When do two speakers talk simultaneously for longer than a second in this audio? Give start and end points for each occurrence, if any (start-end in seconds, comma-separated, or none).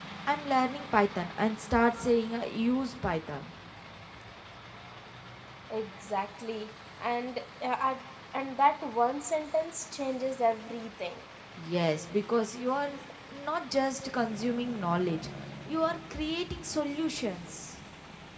none